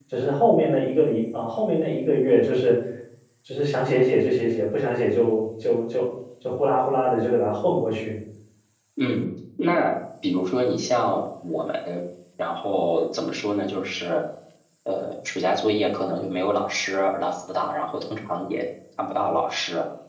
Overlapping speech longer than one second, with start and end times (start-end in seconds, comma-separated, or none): none